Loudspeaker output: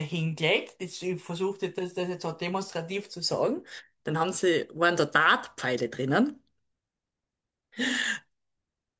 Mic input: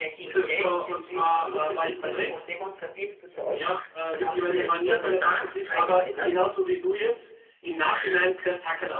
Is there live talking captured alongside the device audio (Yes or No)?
Yes